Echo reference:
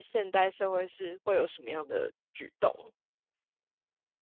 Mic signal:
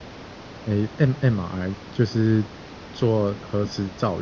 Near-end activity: present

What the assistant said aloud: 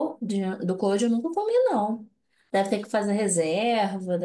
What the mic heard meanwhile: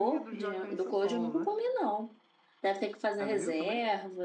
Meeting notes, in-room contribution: present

